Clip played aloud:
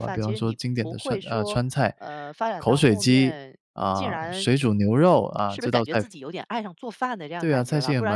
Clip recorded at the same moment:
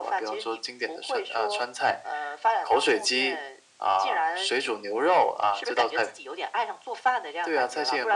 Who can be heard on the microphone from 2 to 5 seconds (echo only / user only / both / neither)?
echo only